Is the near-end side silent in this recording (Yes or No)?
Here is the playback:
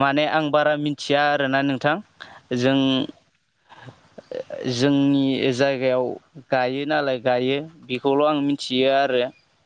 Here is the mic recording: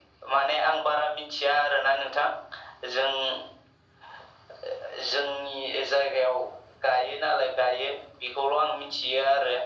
Yes